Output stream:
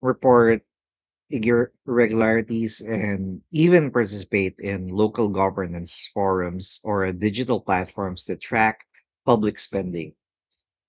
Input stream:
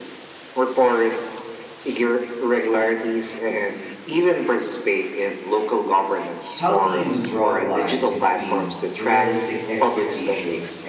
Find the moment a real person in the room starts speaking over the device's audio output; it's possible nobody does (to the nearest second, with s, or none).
7 s